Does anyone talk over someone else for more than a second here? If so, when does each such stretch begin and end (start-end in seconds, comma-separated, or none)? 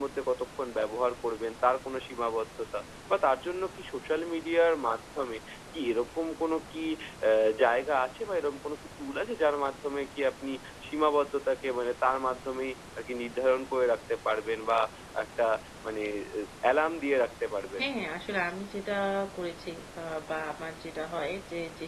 none